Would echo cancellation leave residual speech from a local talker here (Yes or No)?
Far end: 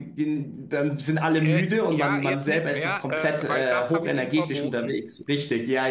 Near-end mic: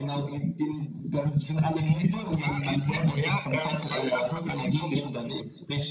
No